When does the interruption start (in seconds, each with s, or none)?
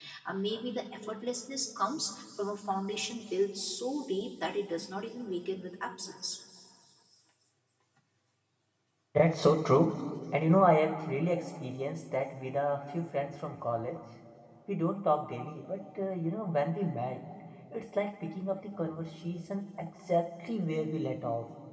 none